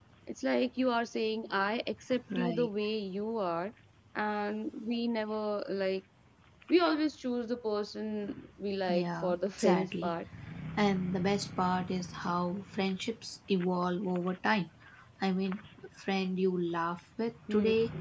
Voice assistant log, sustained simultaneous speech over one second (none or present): present